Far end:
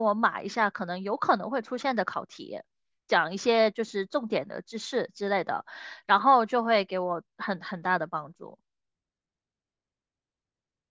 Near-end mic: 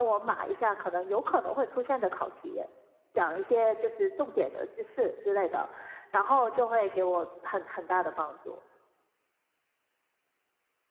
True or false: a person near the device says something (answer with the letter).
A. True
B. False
B